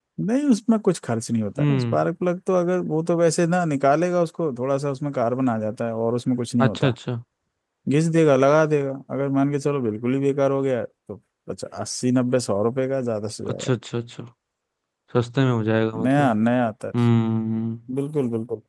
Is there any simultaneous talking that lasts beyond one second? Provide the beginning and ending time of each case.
none

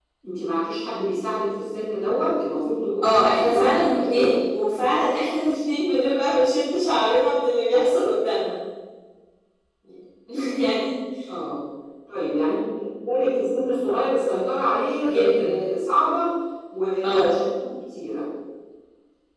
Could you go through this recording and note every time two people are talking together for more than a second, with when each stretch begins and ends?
3.0-4.3

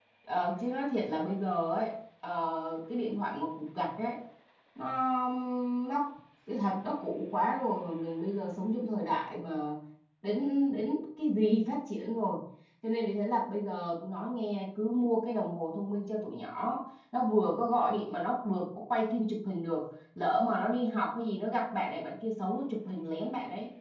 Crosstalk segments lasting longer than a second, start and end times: none

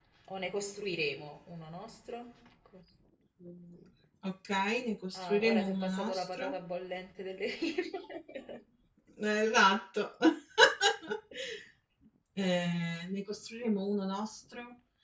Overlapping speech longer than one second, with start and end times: 5.1-6.5

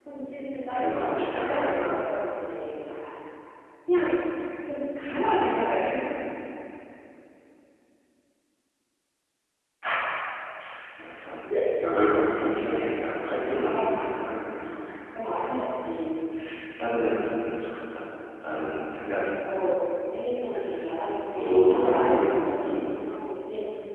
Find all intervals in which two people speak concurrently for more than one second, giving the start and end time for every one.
0.7-2.2, 21.3-22.8

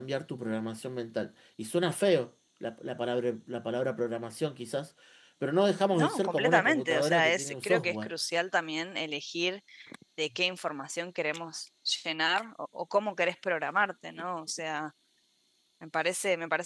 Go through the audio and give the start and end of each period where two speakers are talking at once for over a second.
5.9-8.1

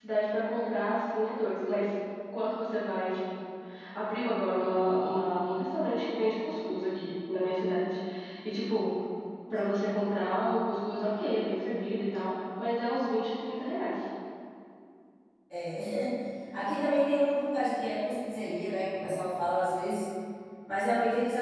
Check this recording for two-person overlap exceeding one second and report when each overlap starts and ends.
none

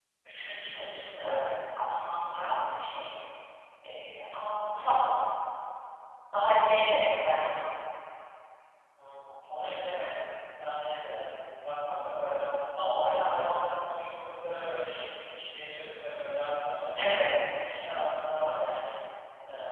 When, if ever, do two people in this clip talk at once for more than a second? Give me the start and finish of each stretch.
none

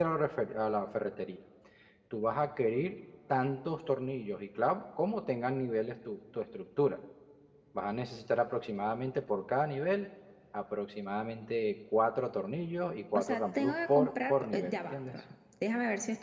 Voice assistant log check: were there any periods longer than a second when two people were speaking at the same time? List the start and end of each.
13.2-15.2

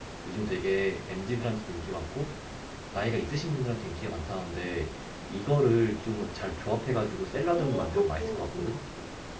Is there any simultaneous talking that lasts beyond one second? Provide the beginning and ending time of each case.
7.5-8.8

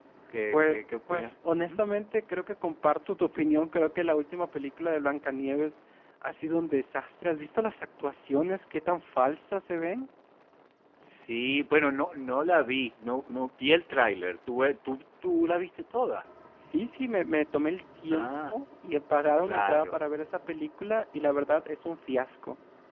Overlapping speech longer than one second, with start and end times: 0.5-1.8

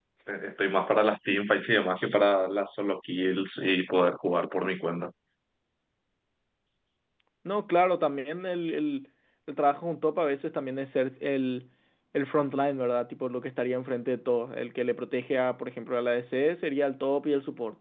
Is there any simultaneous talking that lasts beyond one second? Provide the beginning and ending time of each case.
none

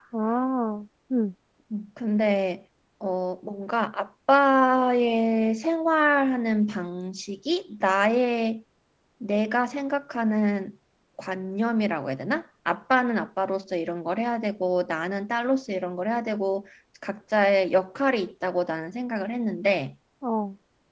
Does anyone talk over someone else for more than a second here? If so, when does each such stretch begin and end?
none

